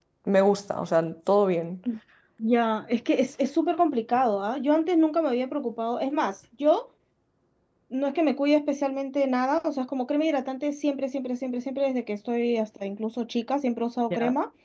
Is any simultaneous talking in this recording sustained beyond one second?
No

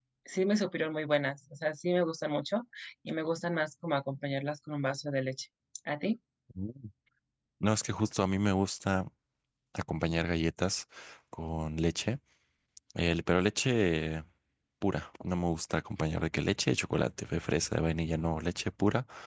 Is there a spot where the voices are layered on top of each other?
No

